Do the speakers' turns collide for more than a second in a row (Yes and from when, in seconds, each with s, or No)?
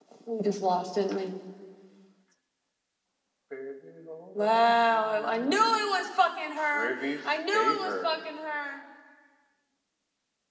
Yes, from 4.4 s